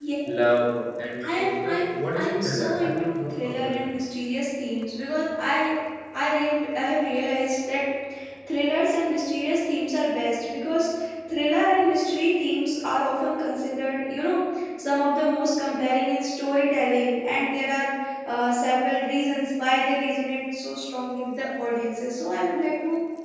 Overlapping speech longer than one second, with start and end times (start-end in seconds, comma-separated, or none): 1.3-3.7